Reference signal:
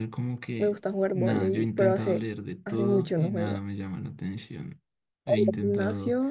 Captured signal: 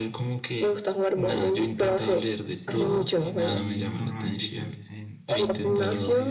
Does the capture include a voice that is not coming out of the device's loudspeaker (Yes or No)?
Yes